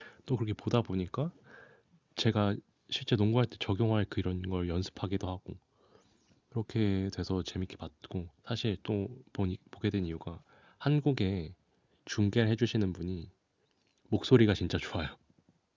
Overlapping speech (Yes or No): No